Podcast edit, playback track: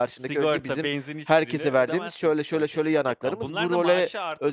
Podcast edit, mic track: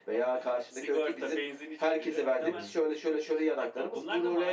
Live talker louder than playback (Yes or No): No